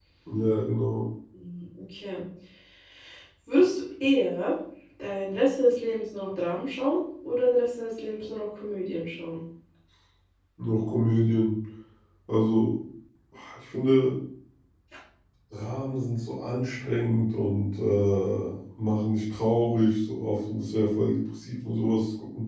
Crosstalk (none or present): none